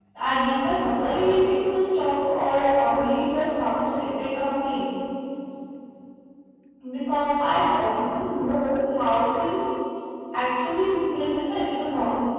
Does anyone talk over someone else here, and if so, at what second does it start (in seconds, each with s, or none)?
none